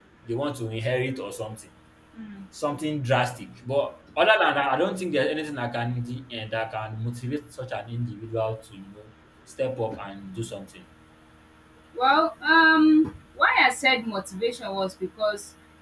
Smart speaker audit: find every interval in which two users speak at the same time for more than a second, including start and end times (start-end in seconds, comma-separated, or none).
none